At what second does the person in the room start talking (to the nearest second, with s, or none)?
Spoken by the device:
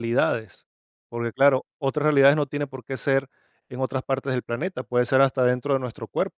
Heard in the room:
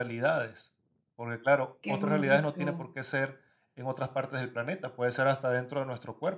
2 s